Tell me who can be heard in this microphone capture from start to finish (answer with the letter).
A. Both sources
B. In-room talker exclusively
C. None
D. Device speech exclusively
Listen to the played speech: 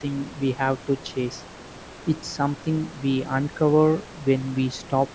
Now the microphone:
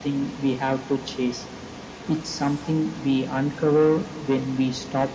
D